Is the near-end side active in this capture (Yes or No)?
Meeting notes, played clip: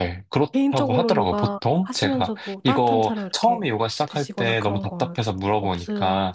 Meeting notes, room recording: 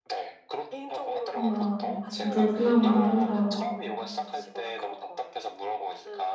Yes